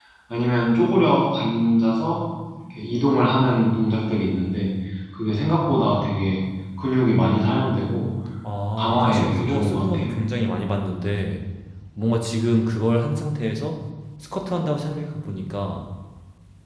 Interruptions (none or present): present